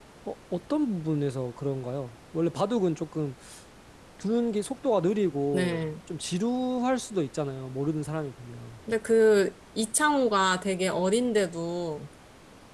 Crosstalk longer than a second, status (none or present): none